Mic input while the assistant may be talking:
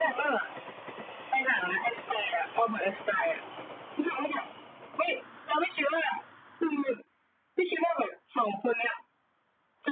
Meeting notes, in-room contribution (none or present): none